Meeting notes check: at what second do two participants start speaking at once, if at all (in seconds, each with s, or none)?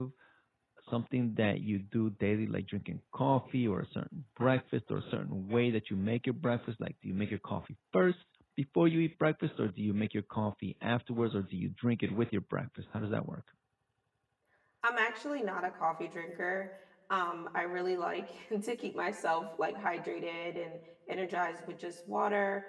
none